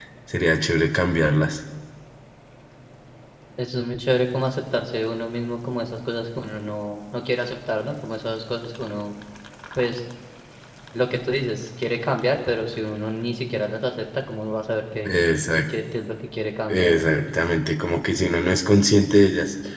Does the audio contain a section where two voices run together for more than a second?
No

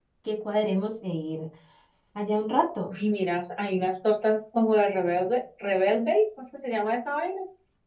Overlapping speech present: No

